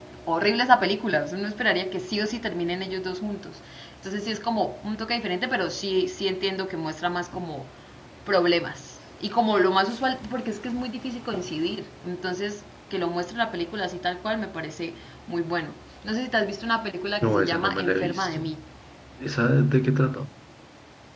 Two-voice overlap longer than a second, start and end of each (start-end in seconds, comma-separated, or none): 17.2-18.4